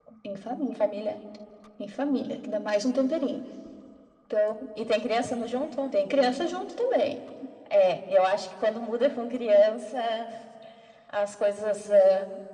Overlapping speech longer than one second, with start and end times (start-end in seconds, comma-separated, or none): none